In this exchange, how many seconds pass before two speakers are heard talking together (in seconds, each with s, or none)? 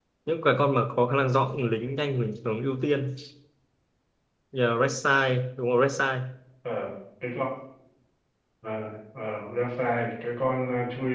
none